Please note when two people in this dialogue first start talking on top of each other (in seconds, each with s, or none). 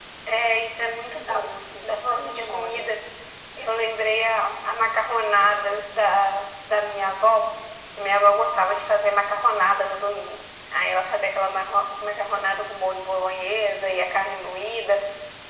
0.8 s